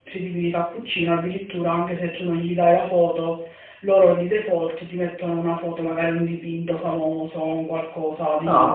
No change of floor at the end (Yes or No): No